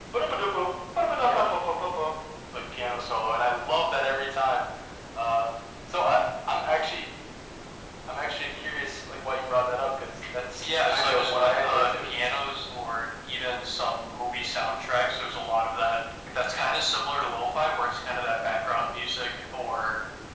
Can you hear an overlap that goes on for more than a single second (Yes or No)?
Yes